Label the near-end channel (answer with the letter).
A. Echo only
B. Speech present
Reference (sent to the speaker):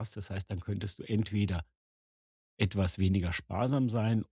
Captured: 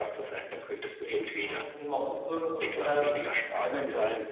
B